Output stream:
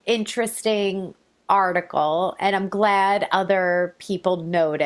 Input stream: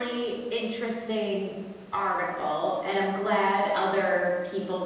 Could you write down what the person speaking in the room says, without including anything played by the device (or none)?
none